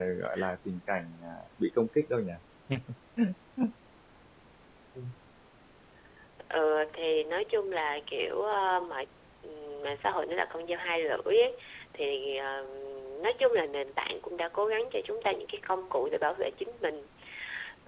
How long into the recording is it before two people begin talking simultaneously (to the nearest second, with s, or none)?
none